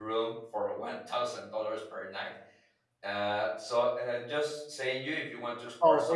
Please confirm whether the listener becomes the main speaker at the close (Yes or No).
Yes